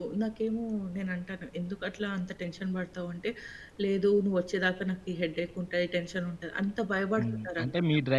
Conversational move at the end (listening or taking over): taking over